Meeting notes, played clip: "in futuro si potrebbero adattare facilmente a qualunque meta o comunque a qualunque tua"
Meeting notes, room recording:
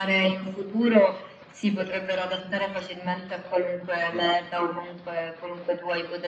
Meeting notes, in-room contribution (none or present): present